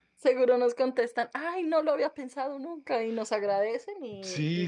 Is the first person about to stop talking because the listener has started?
Yes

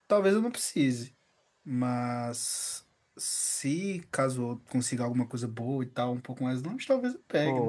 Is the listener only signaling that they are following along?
No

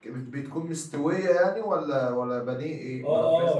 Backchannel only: No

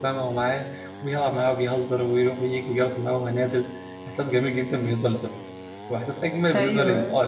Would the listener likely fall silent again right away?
Yes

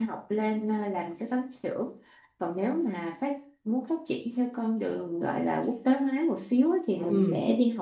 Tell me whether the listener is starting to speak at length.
No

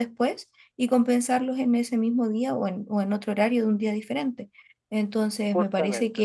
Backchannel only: Yes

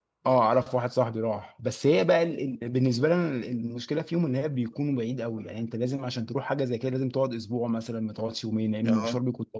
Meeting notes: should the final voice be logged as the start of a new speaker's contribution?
Yes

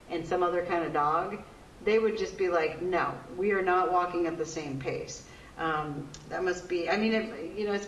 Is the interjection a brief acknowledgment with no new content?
Yes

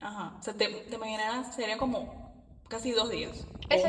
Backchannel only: No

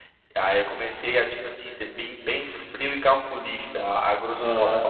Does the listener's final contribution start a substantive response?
Yes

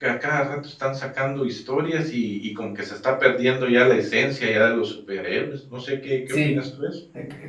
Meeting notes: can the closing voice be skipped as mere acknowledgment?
No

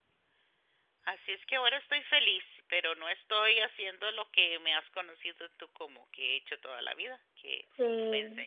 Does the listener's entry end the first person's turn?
Yes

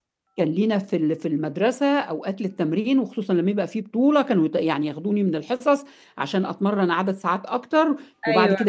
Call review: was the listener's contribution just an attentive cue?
Yes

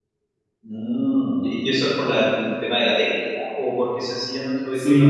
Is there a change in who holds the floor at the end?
Yes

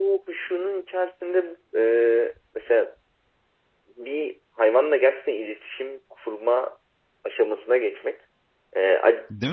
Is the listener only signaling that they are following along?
Yes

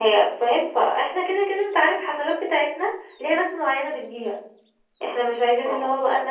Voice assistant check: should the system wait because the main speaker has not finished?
Yes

